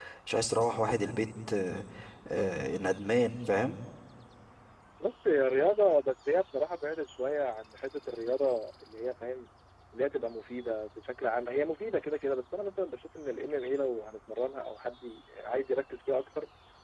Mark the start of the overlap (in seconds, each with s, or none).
none